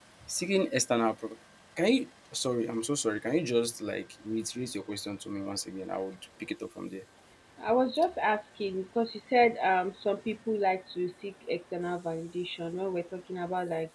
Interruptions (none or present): none